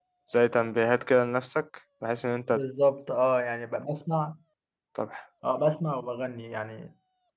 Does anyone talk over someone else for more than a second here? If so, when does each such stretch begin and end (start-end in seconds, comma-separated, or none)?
none